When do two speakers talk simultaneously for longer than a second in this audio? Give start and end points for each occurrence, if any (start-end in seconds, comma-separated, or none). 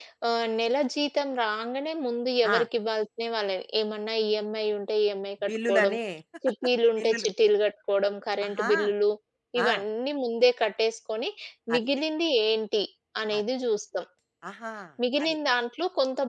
none